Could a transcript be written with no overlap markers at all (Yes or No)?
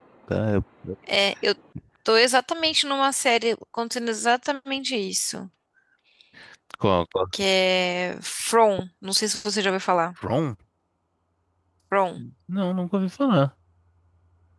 Yes